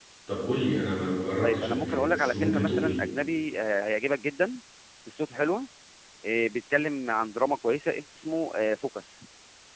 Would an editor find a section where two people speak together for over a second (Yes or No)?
Yes